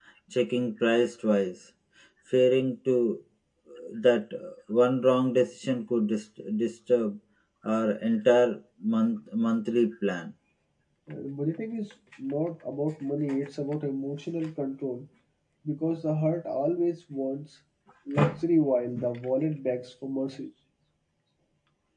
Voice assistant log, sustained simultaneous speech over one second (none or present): none